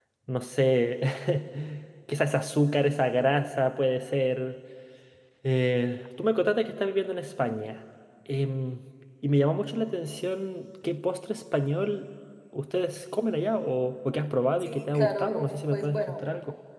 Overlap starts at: 14.6 s

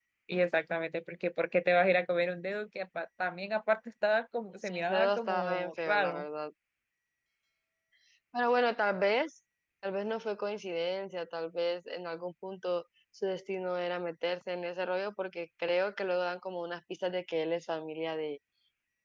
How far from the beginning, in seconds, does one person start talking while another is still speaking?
4.6 s

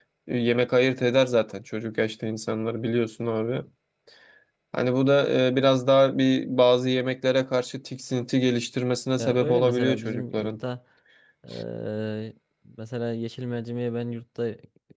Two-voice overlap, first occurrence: 9.2 s

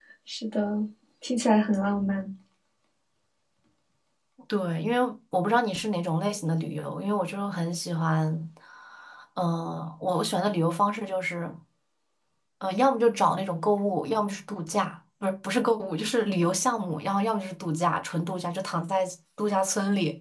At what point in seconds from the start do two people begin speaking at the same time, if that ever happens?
none

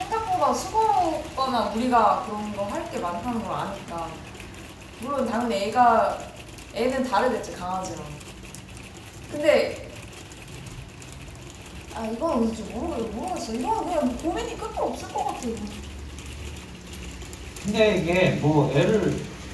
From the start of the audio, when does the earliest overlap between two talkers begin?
none

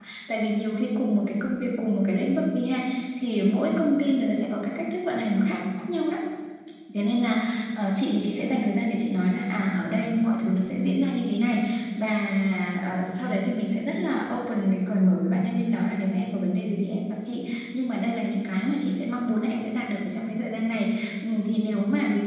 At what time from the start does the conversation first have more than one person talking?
none

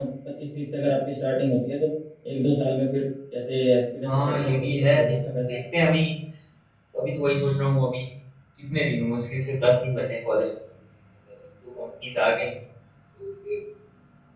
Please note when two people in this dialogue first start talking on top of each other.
4.0 s

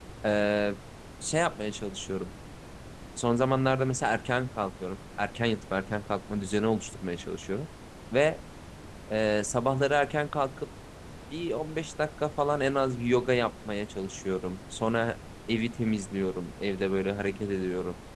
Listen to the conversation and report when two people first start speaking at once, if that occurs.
none

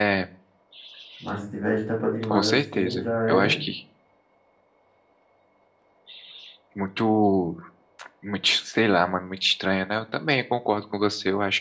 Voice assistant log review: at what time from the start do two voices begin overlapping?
2.2 s

